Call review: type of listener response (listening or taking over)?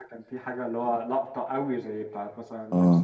taking over